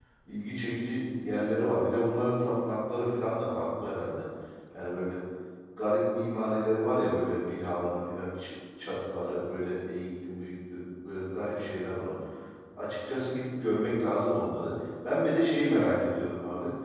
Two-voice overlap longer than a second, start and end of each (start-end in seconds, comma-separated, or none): none